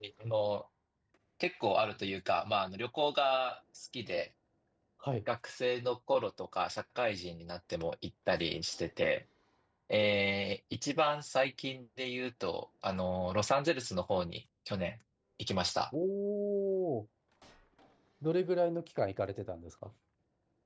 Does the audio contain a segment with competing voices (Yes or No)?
No